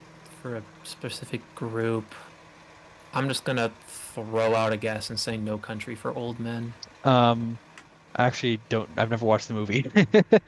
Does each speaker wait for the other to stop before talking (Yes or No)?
Yes